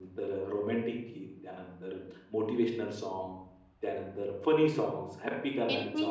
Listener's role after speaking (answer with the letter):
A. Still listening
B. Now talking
B